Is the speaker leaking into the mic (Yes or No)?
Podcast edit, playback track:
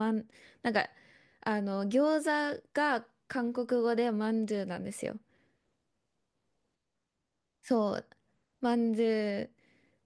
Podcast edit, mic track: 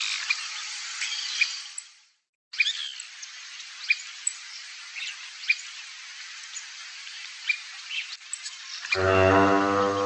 No